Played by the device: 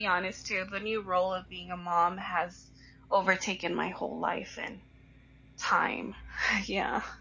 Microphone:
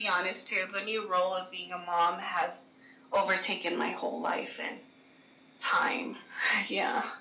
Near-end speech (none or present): none